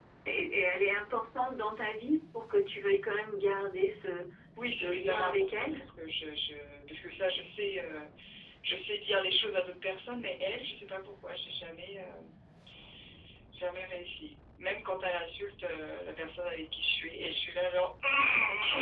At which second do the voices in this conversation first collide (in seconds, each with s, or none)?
4.6 s